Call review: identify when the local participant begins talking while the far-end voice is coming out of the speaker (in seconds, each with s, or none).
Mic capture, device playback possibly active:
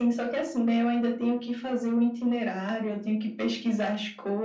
none